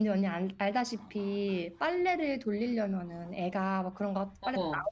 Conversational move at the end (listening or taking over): listening